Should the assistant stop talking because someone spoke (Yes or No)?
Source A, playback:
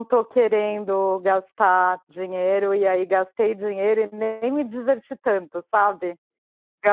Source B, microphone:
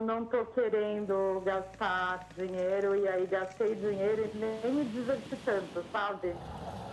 No